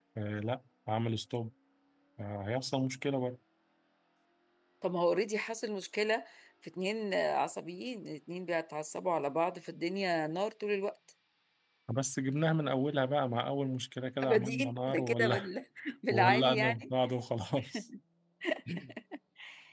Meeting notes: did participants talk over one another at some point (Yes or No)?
Yes